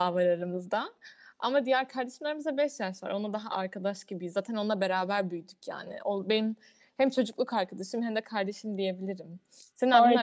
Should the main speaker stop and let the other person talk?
Yes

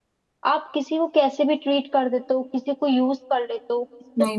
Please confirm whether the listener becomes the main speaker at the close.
Yes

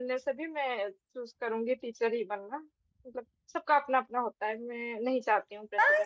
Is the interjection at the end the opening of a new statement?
Yes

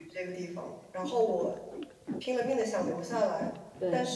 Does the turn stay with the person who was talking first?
Yes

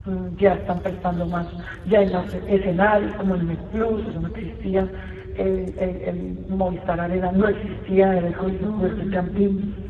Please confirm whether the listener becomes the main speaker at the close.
No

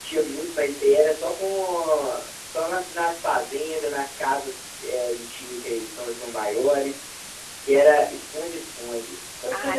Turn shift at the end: Yes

